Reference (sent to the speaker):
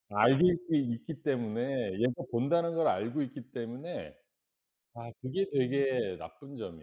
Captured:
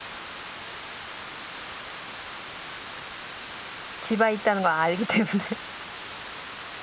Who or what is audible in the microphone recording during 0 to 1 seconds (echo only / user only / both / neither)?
neither